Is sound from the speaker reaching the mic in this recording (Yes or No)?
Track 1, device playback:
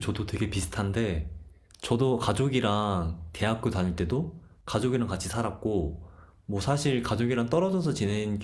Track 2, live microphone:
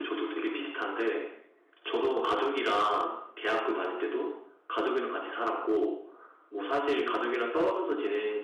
Yes